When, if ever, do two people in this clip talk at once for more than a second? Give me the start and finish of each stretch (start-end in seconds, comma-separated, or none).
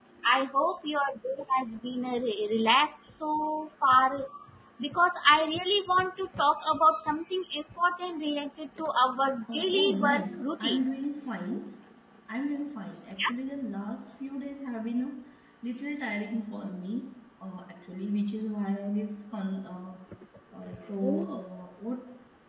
9.5-10.8